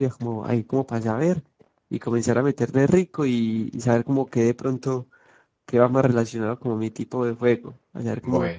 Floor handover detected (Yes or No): Yes